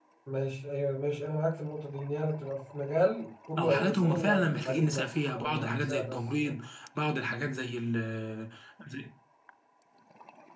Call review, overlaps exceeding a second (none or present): present